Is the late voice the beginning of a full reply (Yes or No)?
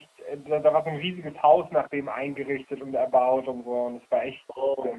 Yes